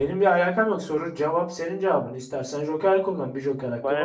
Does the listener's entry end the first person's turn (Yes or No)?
Yes